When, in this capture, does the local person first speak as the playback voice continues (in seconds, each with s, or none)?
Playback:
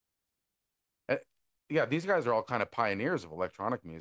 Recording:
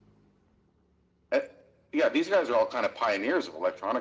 none